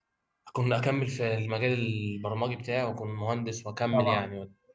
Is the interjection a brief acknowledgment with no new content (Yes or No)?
No